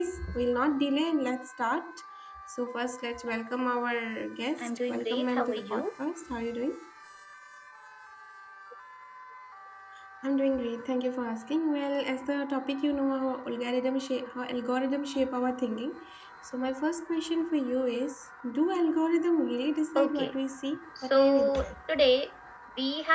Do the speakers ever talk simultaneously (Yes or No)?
Yes